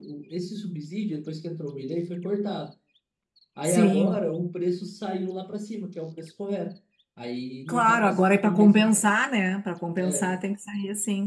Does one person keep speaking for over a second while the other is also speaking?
Yes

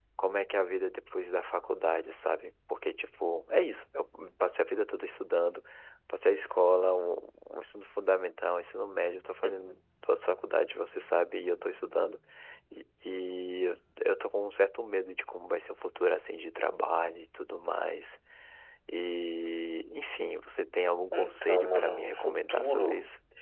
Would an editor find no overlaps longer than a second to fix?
No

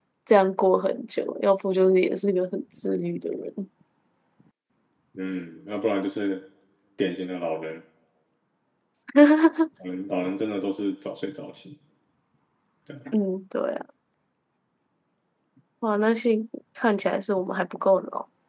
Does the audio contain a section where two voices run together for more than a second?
No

